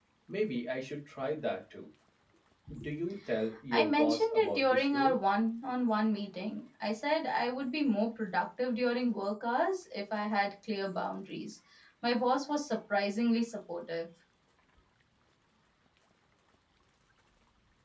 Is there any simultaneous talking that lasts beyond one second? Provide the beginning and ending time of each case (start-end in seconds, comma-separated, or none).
3.7-5.2